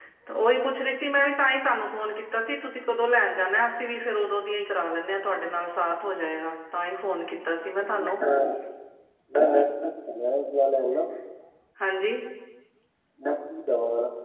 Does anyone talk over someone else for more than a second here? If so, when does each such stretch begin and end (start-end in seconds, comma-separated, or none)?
none